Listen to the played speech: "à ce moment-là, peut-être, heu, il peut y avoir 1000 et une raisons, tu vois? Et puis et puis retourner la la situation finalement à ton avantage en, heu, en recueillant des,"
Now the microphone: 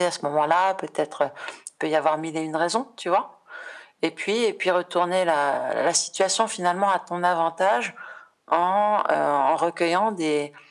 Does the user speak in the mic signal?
No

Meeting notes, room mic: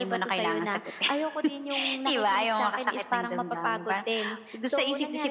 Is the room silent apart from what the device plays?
Yes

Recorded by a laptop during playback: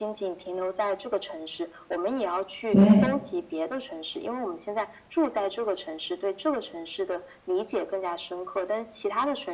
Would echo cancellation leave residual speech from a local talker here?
Yes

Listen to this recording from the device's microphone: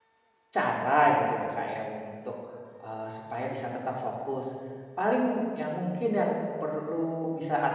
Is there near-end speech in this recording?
Yes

